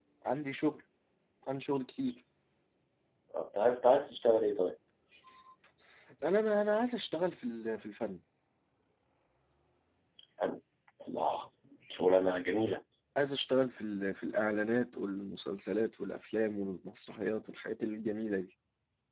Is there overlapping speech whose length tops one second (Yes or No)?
No